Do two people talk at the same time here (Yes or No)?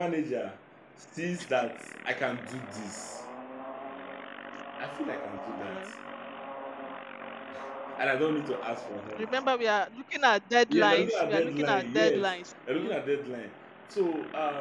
Yes